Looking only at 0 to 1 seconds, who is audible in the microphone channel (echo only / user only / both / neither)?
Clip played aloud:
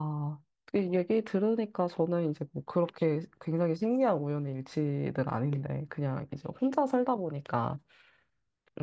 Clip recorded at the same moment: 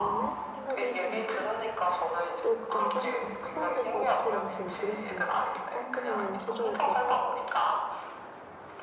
both